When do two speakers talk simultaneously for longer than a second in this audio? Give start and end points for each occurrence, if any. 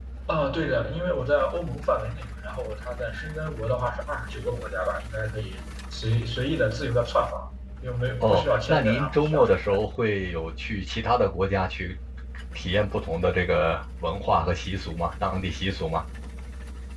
8.2-9.5

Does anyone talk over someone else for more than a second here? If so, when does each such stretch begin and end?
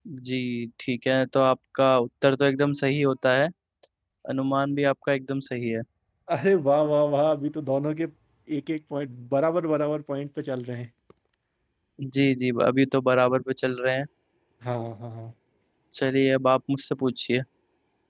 none

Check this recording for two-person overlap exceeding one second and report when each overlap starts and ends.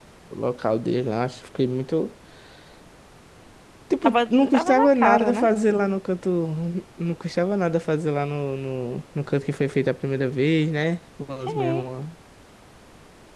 4.0-5.5

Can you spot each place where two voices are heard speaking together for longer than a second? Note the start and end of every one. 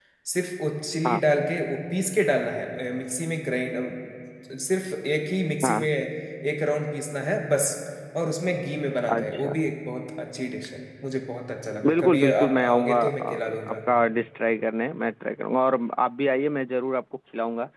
11.9-13.8

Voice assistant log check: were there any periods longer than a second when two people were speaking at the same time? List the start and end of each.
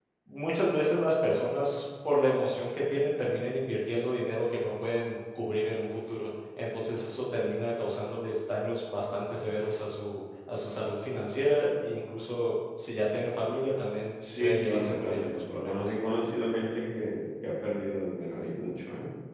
14.4-15.8

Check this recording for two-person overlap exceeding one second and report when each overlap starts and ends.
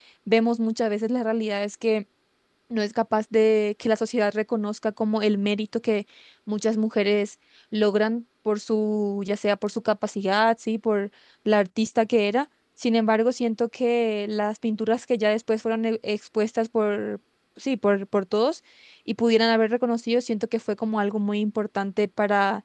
none

